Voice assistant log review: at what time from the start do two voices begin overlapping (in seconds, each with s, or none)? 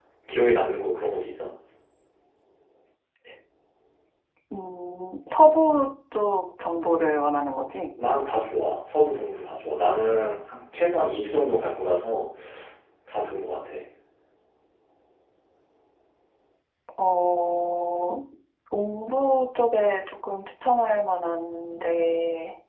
none